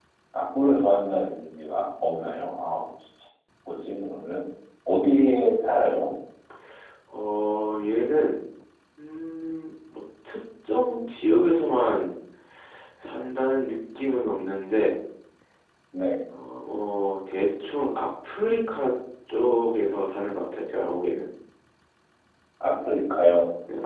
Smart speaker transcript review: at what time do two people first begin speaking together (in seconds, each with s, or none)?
none